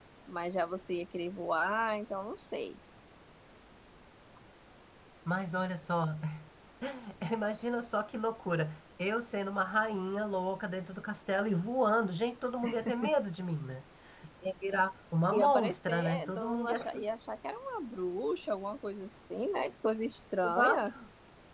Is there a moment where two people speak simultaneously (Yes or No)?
Yes